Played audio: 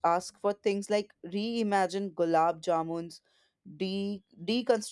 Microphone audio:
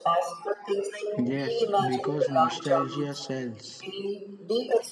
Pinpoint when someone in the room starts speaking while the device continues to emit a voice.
1.2 s

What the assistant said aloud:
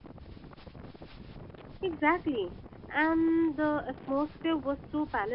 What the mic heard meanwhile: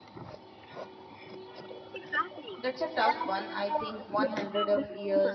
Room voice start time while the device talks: 2.6 s

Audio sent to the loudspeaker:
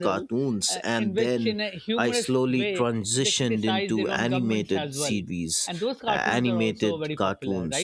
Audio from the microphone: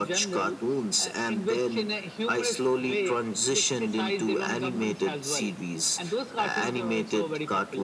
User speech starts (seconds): none

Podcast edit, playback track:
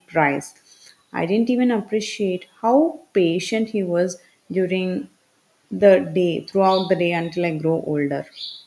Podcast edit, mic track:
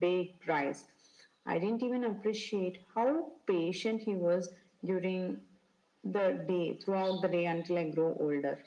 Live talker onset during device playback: none

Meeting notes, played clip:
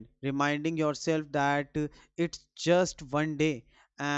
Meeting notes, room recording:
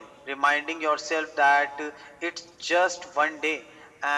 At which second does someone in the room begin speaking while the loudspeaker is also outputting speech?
none

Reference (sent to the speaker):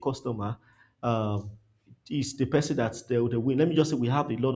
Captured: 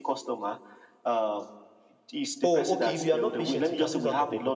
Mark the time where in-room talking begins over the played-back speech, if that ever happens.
2.4 s

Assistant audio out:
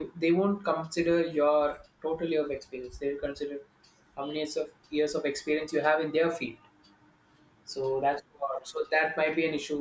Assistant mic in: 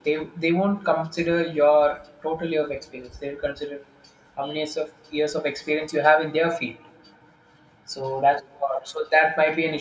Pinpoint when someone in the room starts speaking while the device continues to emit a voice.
none

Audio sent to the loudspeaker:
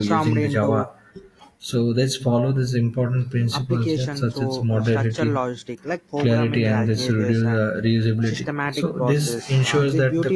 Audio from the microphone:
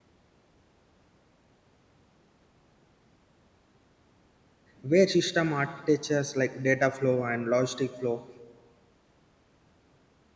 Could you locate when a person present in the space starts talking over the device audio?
4.8 s

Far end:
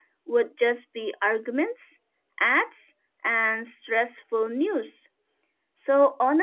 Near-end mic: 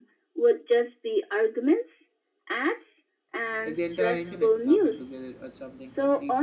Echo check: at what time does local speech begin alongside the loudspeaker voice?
3.6 s

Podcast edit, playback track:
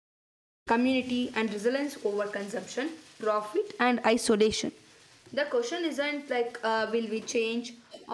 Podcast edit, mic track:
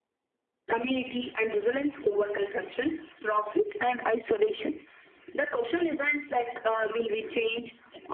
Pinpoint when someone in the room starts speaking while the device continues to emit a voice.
none

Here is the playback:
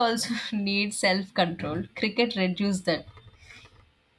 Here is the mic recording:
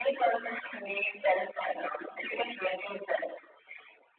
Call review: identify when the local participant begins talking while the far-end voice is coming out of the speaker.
none

